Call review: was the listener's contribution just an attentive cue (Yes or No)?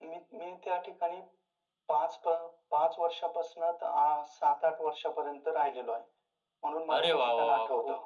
No